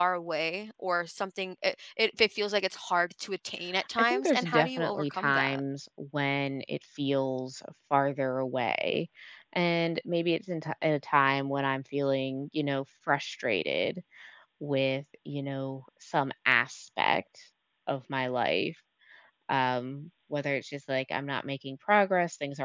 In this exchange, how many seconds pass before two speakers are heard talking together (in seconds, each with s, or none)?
4.0 s